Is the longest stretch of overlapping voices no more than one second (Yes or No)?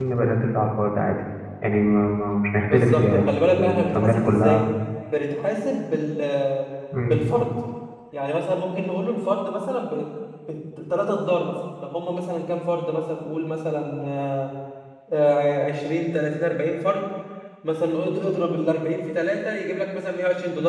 No